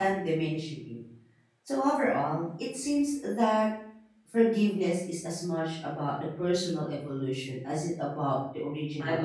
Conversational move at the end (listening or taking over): taking over